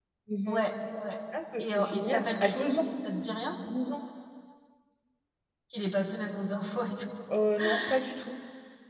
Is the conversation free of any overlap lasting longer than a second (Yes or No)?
No